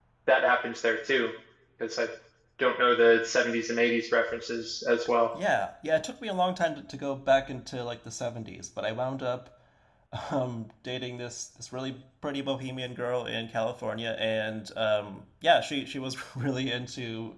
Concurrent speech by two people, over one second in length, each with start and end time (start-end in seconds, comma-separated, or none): none